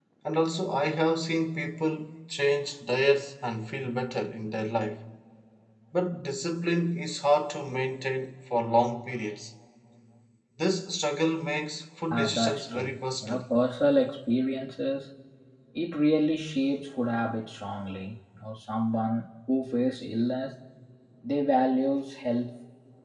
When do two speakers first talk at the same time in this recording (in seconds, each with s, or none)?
12.1 s